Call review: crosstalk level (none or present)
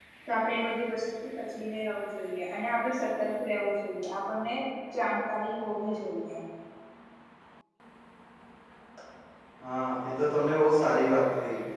none